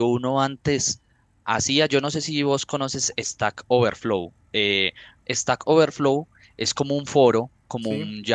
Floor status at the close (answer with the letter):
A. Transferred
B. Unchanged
B